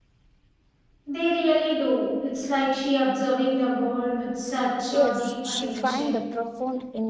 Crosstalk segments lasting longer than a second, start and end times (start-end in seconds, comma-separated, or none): 4.9-6.2